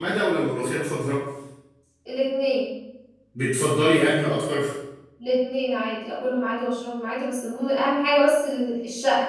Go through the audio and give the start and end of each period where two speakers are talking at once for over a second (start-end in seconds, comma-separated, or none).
none